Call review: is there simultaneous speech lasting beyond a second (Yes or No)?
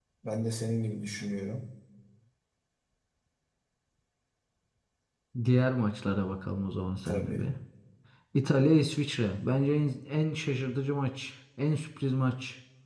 No